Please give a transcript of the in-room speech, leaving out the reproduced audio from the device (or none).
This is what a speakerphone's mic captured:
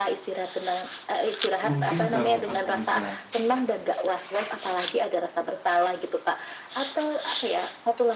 mungkin kalau aku bisa